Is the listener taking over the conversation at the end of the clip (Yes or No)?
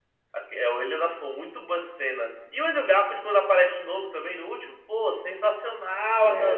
No